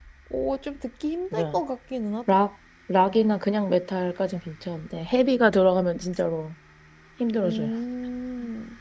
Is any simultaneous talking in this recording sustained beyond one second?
No

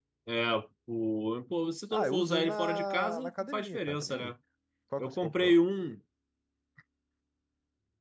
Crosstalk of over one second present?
Yes, from 1.9 s

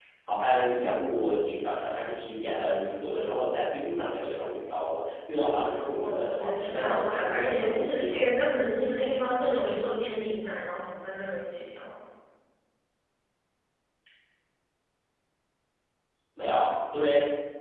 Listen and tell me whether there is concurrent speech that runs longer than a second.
Yes, from 6.0 s

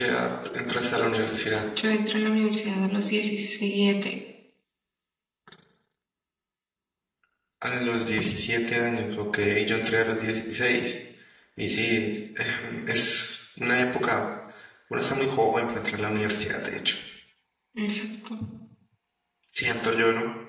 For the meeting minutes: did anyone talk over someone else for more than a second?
No

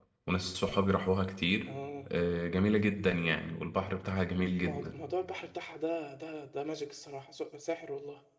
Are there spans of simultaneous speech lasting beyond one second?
No

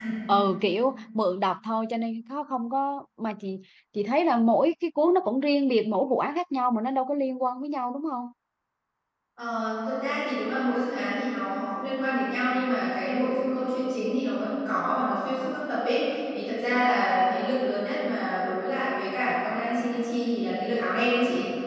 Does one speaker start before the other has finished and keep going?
No

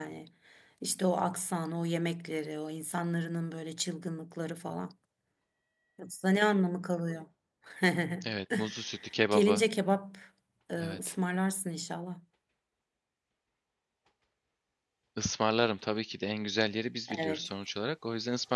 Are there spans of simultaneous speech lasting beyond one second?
No

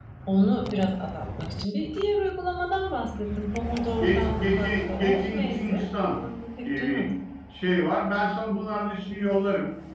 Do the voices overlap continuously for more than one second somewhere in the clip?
Yes, from 4.0 s

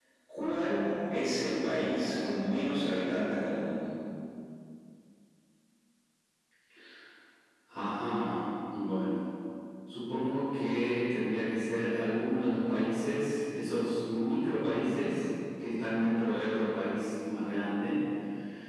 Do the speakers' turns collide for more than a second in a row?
No

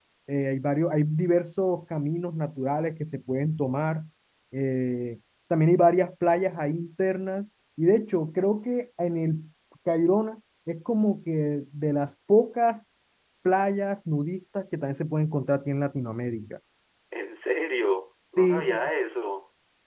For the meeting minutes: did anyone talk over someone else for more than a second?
No

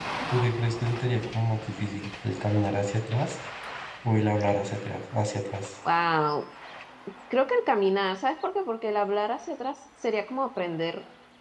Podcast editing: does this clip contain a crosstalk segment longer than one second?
No

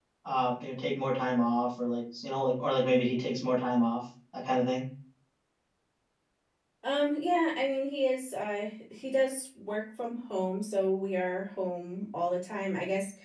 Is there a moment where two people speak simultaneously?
No

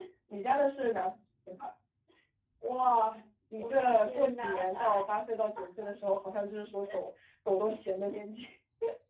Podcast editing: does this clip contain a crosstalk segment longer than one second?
Yes, from 3.6 s

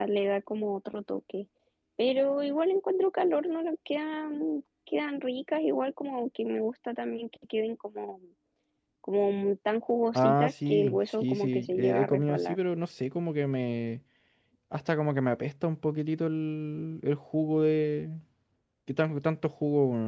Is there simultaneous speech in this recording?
Yes, from 10.2 s

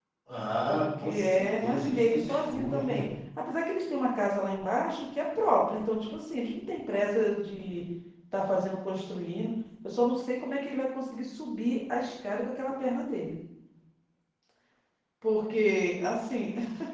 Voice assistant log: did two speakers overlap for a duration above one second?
Yes, from 0.6 s

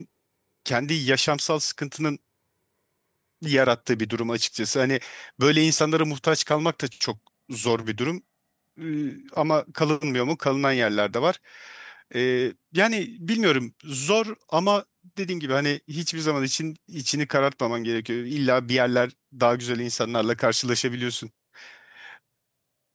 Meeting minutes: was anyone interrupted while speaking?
No

